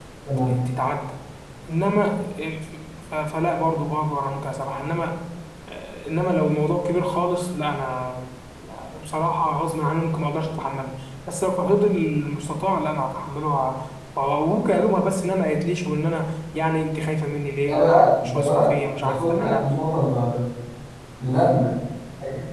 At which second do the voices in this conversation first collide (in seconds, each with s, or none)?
17.7 s